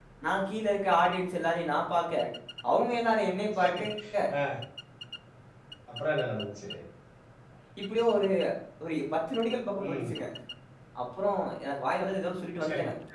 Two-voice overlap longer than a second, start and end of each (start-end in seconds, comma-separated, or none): none